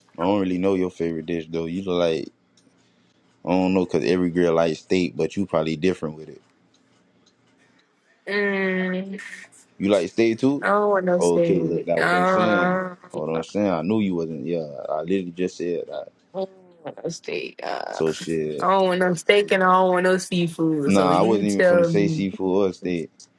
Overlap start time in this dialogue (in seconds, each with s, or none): 11.2 s